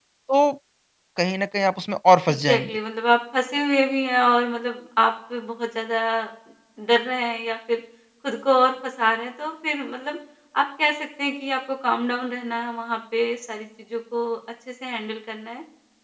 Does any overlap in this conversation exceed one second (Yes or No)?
No